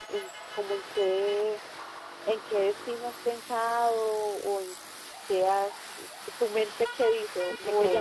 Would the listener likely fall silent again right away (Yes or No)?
No